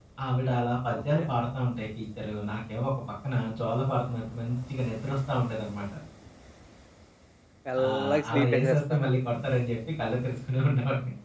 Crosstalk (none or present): present